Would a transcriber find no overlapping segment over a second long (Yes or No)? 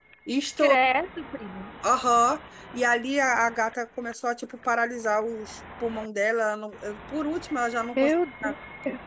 Yes